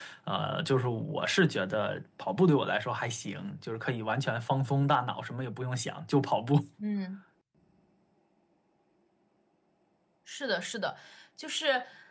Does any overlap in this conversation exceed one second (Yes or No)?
No